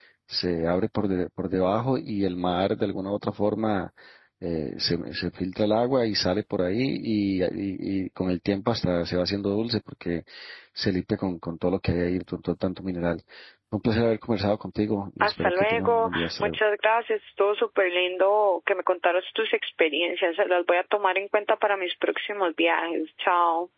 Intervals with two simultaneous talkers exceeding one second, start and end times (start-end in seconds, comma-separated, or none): 15.2-16.6